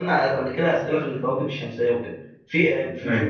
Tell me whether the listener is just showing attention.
Yes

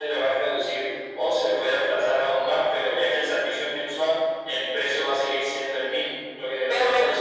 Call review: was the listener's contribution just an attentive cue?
No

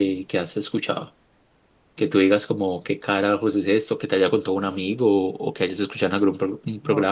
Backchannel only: No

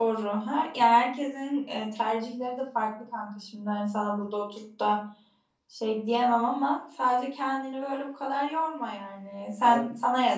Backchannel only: Yes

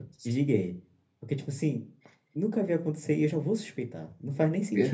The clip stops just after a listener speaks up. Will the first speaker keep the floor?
No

